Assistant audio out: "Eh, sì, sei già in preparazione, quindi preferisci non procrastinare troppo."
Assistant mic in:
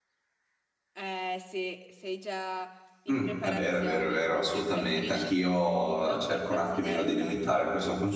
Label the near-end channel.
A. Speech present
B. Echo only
A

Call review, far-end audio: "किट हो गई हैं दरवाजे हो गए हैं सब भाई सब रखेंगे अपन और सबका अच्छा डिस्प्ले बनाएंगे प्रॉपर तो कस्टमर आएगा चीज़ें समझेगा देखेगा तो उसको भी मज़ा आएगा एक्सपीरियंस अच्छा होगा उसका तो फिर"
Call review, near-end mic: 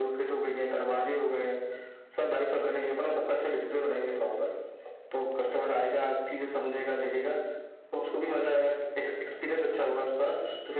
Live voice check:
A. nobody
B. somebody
A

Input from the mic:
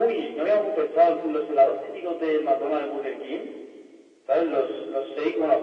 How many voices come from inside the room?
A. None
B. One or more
A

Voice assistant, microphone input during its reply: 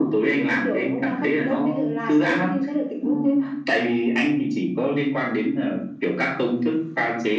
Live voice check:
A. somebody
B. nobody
B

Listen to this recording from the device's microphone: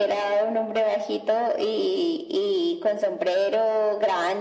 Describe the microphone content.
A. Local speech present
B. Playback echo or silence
B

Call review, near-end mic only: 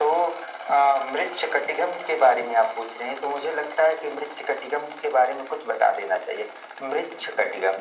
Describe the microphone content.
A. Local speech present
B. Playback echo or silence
B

